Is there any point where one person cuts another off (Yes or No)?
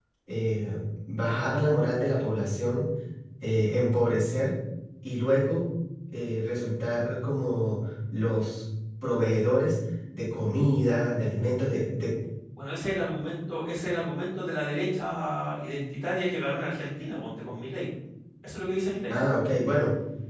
No